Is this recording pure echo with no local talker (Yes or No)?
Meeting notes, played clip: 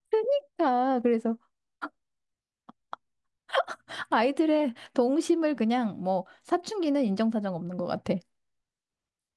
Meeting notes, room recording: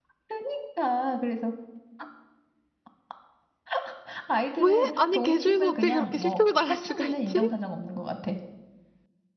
No